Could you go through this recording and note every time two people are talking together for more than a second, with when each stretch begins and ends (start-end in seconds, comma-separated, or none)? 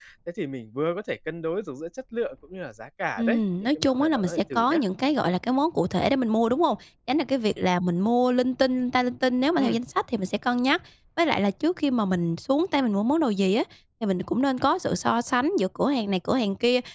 3.2-4.8